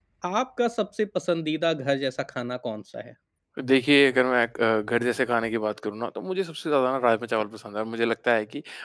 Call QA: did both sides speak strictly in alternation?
Yes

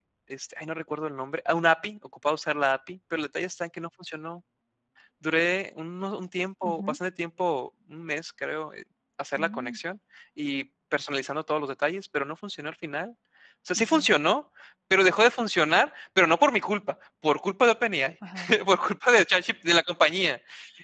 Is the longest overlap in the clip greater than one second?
No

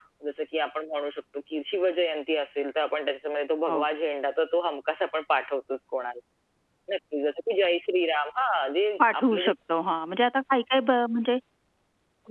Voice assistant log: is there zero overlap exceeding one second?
Yes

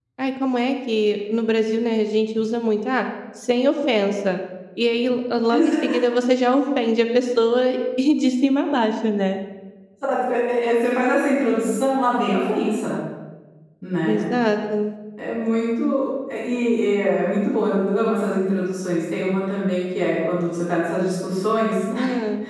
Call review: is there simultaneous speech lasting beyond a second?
No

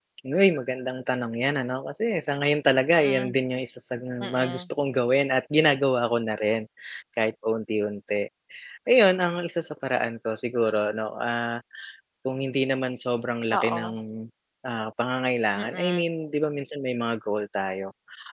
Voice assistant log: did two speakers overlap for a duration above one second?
No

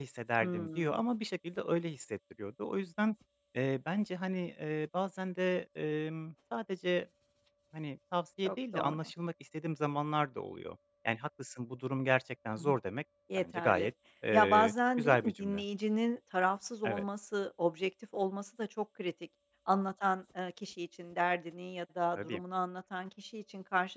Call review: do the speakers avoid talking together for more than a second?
No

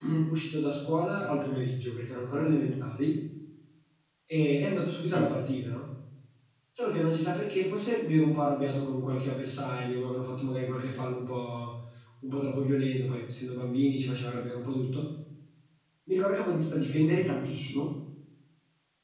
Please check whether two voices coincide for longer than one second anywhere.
No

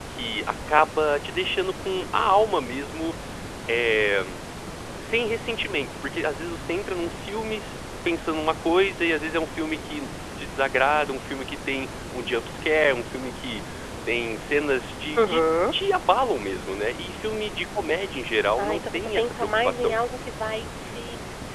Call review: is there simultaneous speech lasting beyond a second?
Yes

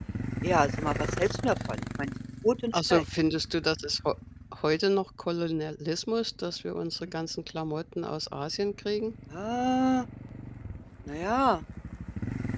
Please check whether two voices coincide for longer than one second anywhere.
No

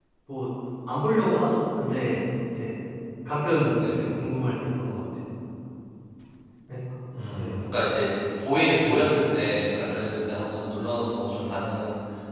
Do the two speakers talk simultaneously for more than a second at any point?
No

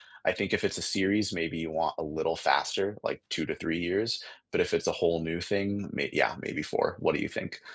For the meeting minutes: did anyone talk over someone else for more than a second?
No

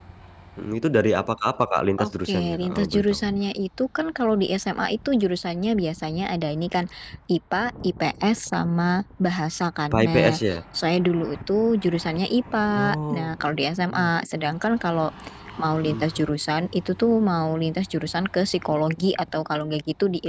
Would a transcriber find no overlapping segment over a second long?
No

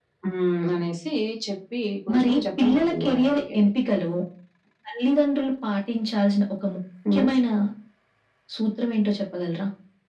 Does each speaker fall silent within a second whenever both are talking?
No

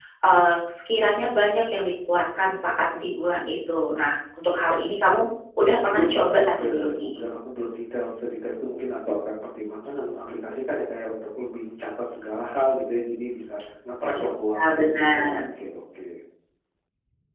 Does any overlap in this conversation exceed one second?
Yes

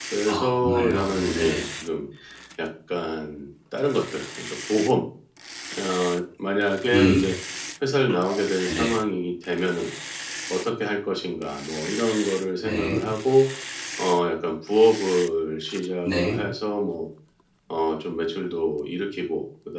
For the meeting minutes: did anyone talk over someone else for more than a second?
Yes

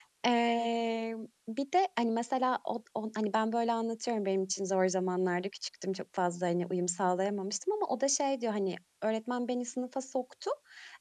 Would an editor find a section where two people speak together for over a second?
No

